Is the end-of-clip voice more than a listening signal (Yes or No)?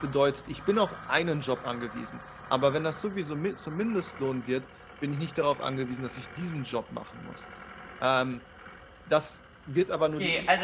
Yes